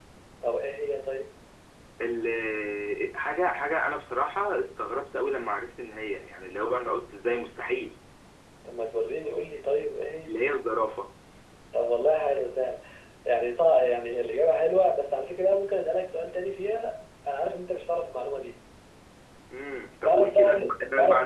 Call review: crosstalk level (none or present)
present